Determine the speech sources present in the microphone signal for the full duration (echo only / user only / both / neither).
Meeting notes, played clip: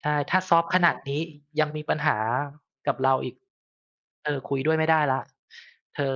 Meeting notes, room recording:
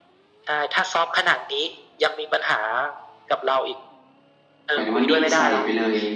both